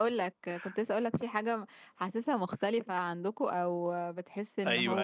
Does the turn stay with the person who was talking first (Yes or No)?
No